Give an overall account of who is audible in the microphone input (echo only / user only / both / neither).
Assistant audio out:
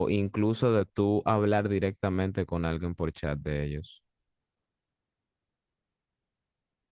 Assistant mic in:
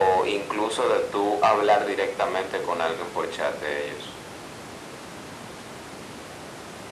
echo only